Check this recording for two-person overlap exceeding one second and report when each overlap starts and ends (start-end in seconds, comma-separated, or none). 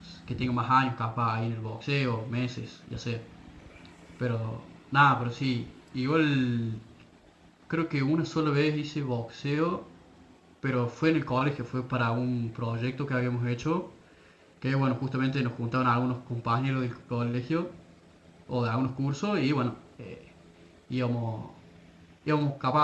none